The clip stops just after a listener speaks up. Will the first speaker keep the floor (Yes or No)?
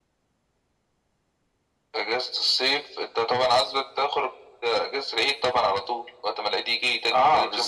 No